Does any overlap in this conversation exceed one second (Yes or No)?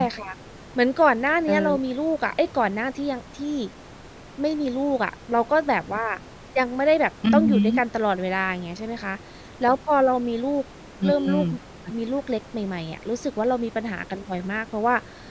No